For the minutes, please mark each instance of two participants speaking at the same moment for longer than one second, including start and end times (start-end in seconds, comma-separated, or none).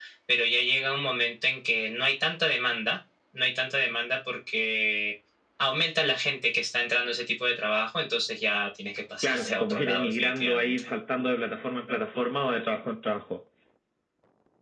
9.2-10.9